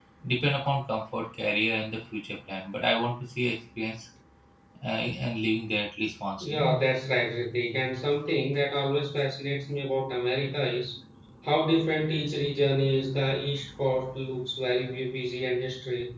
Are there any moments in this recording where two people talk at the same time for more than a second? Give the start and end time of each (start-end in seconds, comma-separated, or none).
none